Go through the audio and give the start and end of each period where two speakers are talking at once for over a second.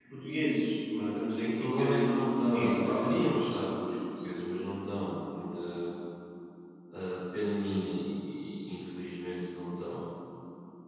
1.4-3.2

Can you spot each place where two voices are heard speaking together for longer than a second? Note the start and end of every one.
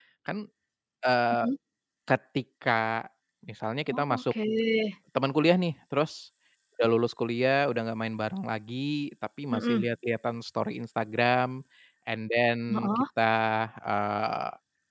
none

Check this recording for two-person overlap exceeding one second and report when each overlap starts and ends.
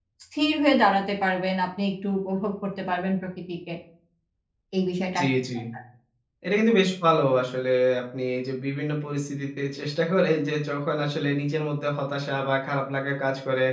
none

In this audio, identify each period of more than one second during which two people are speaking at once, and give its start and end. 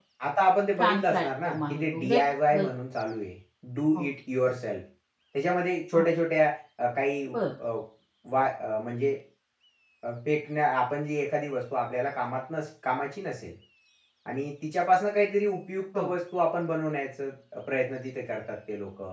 0.8-2.2

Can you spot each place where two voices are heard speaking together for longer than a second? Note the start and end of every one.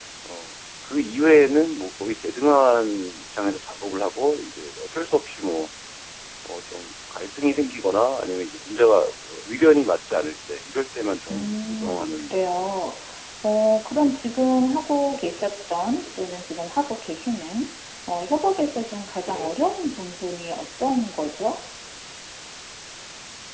11.3-12.6

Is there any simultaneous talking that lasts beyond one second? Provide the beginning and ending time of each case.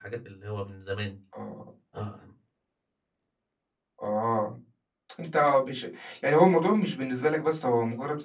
none

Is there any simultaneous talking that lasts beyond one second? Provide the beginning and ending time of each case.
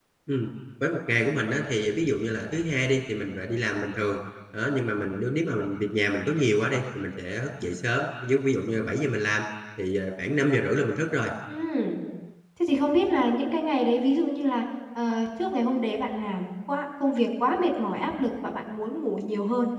none

